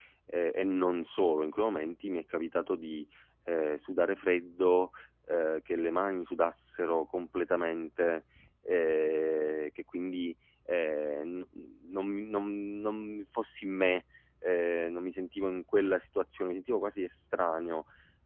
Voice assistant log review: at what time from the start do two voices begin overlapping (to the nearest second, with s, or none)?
none